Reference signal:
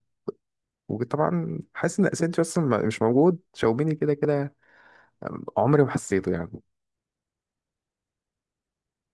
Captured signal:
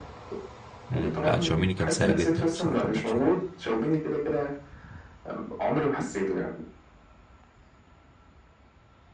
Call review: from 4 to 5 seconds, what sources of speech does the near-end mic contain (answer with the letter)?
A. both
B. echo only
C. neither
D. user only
B